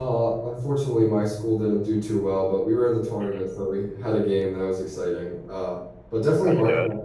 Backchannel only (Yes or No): Yes